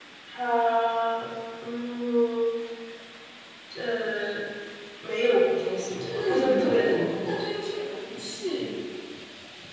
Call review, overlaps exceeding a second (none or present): present